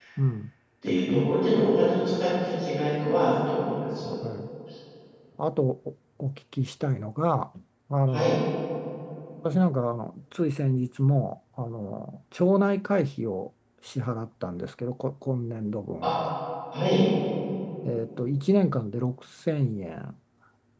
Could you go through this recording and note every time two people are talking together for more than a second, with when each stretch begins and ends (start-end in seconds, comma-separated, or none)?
none